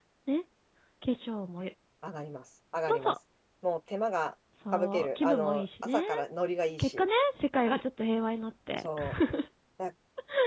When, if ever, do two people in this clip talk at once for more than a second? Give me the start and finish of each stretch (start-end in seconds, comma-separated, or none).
4.7-6.0